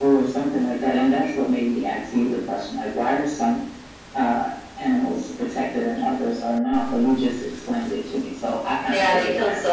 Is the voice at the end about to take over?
Yes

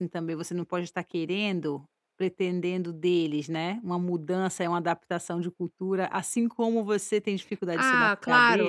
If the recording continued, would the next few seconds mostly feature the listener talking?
Yes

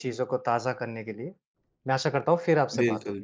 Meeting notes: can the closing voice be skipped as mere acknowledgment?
No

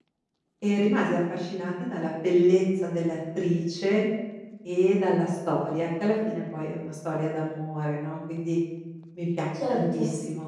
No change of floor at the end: Yes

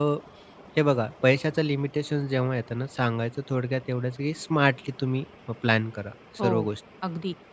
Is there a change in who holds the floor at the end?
Yes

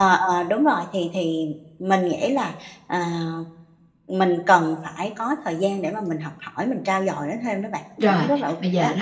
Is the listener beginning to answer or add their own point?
Yes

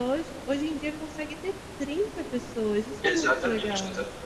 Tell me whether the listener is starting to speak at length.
Yes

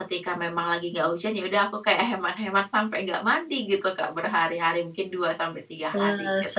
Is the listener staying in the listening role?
No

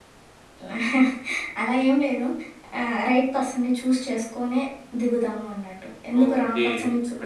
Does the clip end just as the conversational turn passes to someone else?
Yes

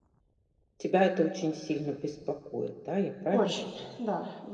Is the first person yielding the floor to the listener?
Yes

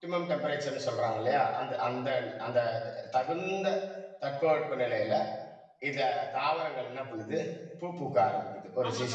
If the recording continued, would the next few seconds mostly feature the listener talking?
Yes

